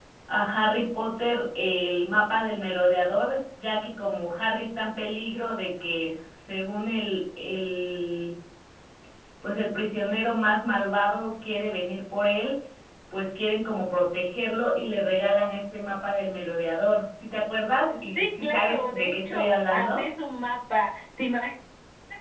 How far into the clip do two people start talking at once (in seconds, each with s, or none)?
17.9 s